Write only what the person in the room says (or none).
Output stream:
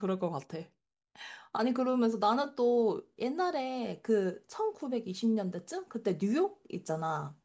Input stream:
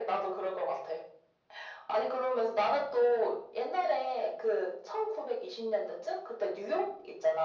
none